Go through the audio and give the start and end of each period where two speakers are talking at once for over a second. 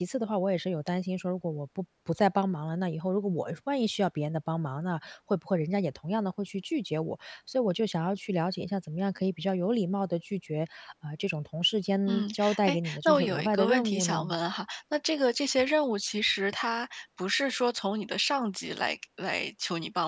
12.1-14.3

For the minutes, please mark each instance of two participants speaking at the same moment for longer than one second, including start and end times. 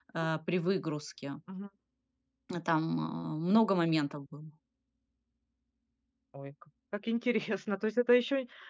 none

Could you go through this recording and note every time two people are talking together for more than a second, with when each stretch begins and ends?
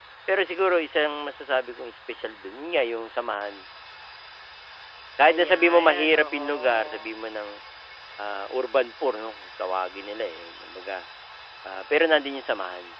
5.3-7.1

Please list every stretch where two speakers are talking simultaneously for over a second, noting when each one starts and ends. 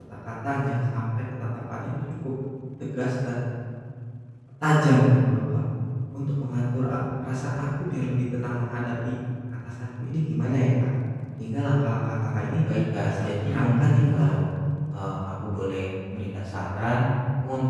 13.1-14.3

